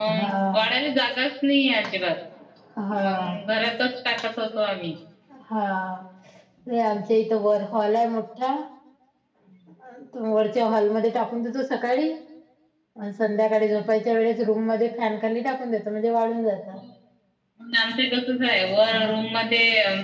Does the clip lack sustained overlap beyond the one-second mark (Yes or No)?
Yes